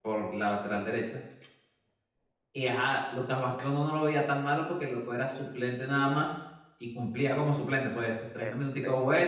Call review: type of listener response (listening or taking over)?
listening